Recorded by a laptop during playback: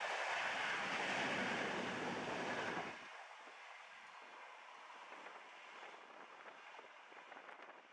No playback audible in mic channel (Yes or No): Yes